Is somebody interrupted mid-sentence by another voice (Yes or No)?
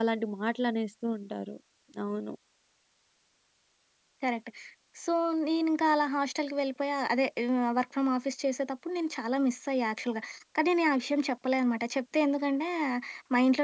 No